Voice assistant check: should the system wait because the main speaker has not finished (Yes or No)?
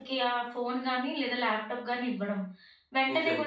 Yes